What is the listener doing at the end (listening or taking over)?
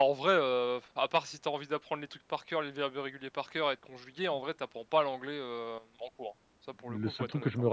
taking over